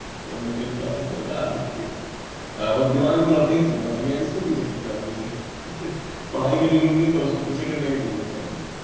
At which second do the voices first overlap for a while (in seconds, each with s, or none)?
none